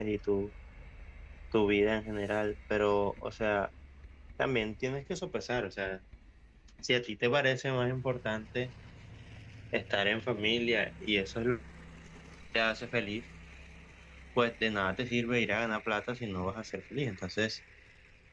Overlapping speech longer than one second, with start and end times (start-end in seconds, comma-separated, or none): none